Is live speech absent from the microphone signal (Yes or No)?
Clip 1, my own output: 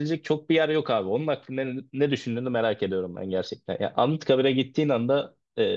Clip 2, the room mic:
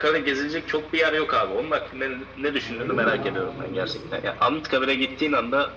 No